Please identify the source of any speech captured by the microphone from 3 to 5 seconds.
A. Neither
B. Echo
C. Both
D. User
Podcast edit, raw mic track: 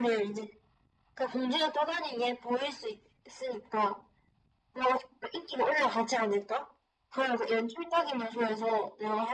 B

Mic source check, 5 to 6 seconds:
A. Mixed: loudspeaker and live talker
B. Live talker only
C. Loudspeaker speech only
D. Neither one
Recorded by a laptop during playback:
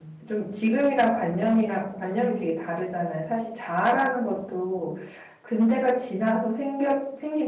B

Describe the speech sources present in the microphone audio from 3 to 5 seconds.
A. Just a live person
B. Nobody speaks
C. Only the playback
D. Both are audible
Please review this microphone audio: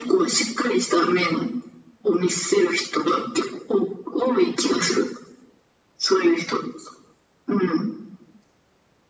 C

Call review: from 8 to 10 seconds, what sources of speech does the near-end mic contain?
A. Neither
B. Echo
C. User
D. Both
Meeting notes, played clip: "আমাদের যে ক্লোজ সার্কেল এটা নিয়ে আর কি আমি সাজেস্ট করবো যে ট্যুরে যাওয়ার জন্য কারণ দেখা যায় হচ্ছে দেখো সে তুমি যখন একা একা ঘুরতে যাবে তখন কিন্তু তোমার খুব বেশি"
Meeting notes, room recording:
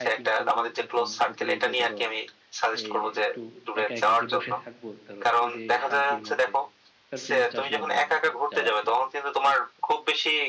D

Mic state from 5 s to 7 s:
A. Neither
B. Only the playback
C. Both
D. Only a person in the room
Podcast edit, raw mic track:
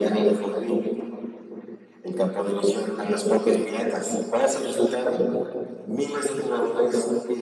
B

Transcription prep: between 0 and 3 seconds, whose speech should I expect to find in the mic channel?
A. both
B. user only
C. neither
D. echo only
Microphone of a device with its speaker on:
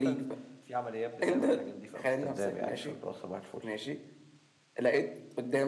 A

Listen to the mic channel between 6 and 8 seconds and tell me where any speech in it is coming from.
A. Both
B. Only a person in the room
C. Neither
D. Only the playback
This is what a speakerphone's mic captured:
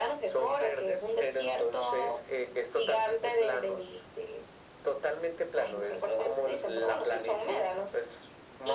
D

